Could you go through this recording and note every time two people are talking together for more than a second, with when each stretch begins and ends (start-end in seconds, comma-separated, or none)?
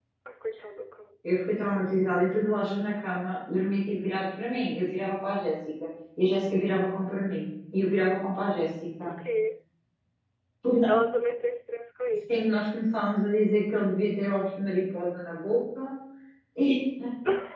none